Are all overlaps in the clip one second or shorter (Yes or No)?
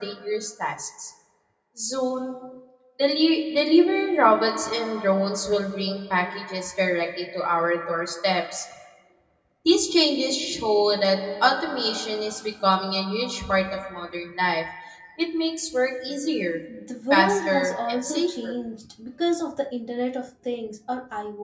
No